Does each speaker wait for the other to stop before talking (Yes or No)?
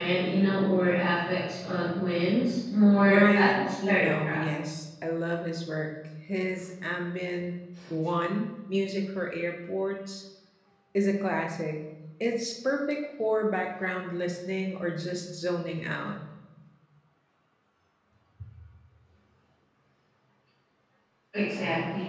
No